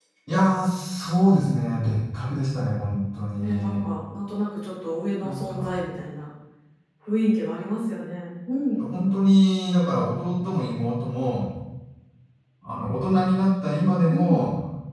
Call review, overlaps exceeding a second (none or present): none